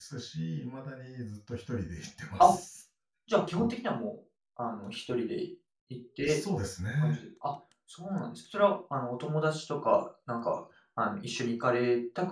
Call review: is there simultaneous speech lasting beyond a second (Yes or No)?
No